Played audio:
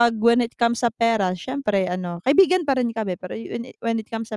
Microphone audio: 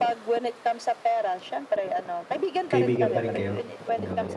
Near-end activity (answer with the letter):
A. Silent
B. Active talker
B